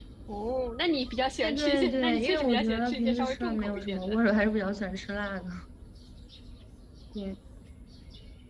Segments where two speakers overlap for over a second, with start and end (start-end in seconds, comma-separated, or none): 1.4-4.2